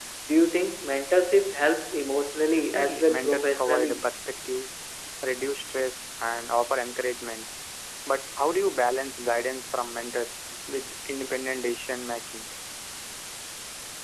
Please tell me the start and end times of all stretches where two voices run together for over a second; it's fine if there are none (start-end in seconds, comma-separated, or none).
2.6-4.0